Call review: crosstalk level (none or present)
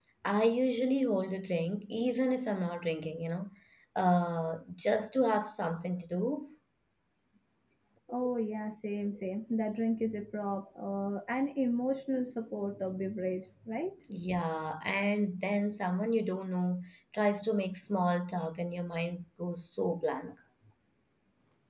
none